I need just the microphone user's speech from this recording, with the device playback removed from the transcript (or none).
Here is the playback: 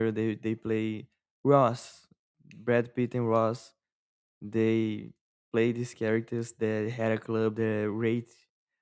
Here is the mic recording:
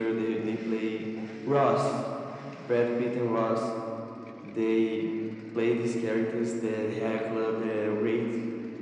none